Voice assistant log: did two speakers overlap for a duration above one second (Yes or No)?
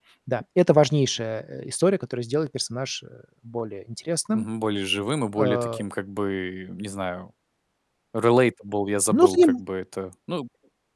No